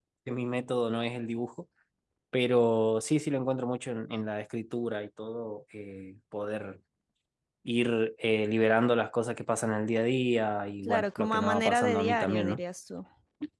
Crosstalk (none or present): present